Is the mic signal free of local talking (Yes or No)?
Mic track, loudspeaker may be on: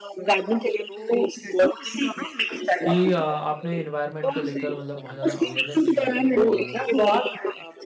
No